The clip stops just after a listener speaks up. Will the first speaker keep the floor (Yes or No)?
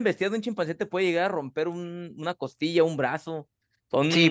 No